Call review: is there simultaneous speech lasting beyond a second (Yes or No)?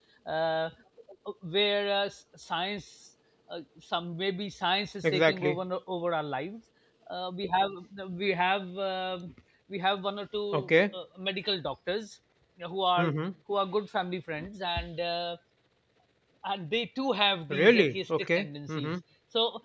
Yes